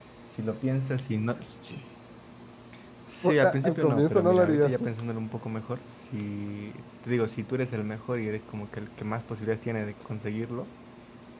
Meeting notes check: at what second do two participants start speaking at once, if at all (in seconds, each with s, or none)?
3.2 s